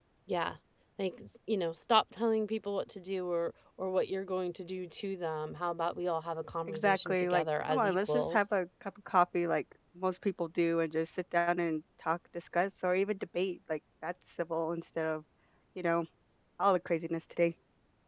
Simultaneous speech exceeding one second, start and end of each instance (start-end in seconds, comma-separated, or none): 6.7-8.5